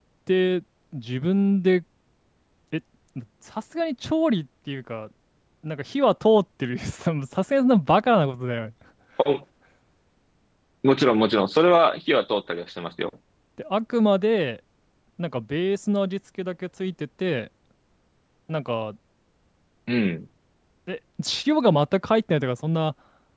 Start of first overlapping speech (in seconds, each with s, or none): none